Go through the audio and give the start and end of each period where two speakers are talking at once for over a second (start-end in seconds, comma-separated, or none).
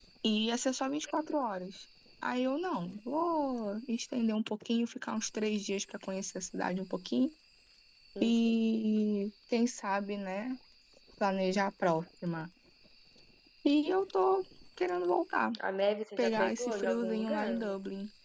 16.2-17.7